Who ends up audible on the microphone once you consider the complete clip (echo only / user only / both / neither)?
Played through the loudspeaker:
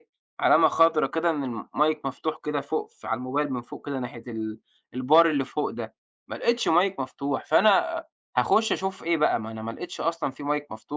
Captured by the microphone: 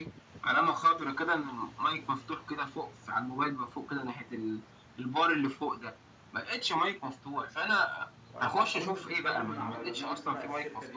both